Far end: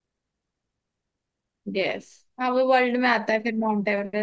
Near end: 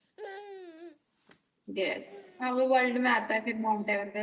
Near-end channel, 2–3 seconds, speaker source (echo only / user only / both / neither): echo only